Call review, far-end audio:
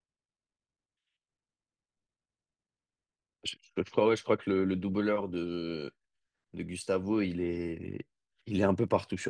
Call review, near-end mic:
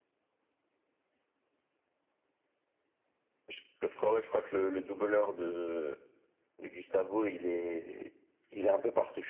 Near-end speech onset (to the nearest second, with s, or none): none